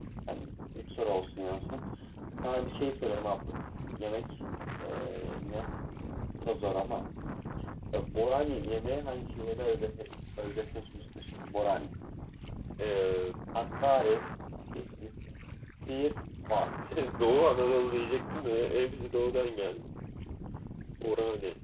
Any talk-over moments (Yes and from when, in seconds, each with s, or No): No